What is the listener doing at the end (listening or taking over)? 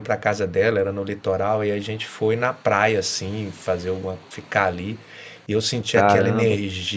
listening